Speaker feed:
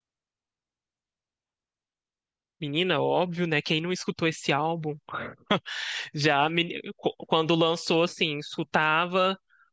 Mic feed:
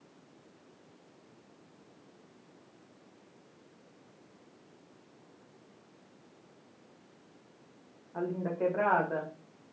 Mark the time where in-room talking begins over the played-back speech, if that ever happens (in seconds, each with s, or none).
8.1 s